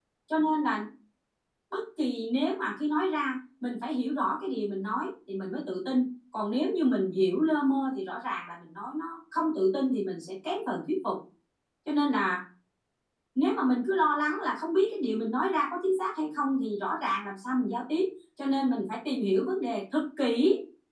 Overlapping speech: No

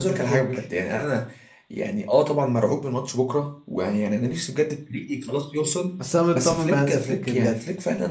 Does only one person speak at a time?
No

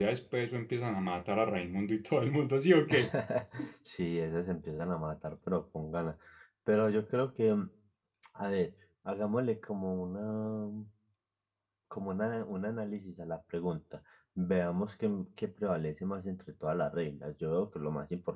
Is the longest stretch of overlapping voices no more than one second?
Yes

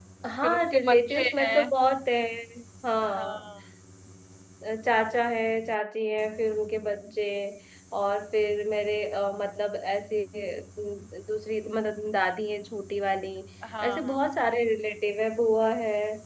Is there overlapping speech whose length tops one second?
Yes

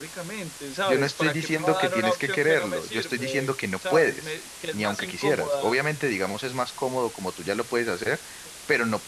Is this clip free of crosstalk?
No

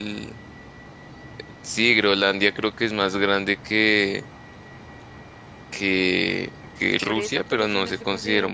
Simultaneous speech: Yes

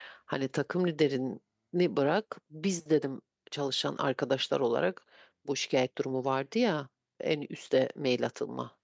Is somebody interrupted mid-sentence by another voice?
No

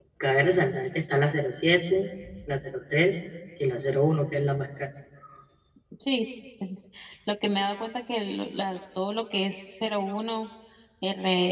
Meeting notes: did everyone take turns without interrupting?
Yes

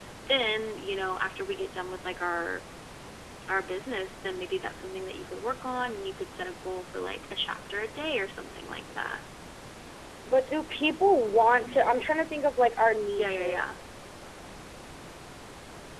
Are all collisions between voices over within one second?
Yes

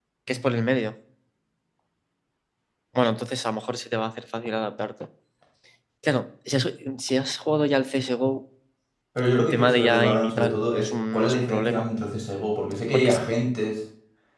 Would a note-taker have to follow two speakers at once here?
Yes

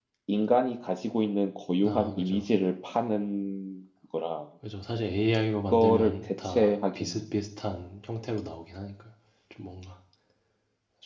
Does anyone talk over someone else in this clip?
Yes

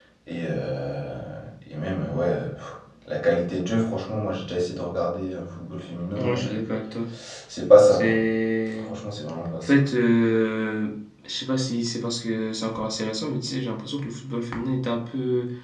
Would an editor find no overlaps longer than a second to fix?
Yes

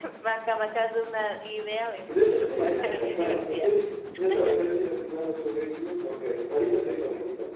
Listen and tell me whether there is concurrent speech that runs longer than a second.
Yes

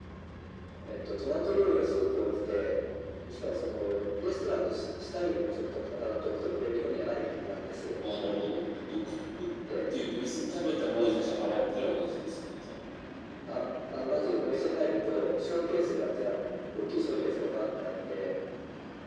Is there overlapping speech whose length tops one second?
No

